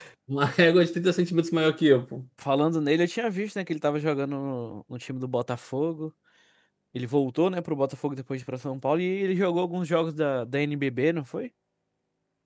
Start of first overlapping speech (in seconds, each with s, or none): none